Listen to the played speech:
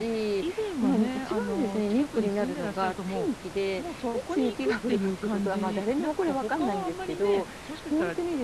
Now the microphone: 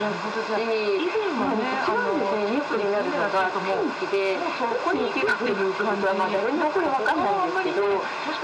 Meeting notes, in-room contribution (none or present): none